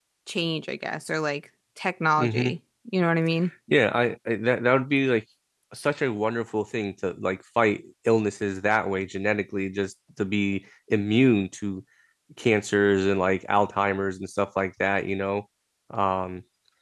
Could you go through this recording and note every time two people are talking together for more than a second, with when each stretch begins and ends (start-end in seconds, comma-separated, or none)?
none